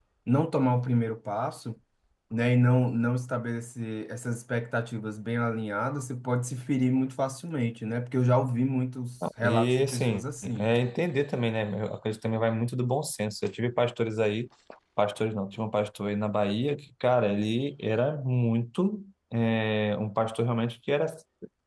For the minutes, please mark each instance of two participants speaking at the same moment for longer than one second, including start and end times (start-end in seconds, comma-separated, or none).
9.4-10.7